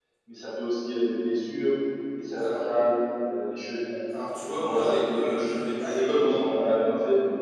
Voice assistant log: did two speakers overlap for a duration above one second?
Yes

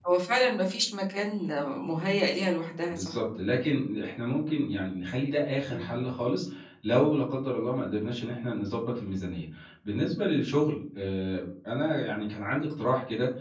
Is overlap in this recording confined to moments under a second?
Yes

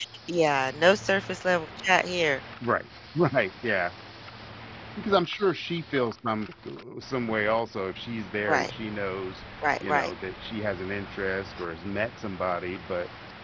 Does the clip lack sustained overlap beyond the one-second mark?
Yes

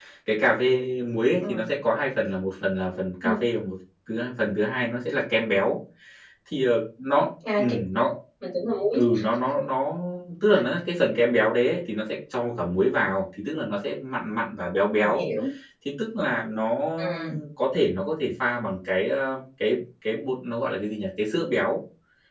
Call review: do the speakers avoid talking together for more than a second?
Yes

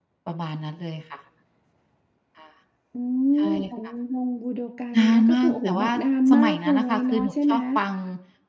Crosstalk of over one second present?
Yes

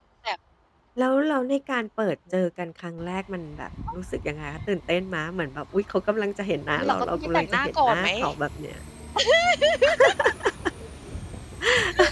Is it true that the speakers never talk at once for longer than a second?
No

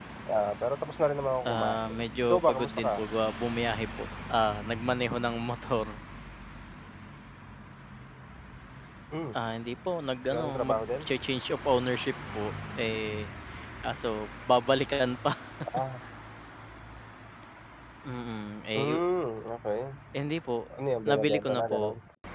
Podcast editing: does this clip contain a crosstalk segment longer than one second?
Yes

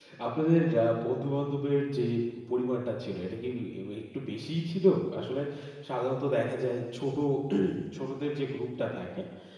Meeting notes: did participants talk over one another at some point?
No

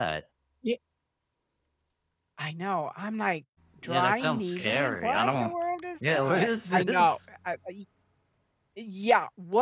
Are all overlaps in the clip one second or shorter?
No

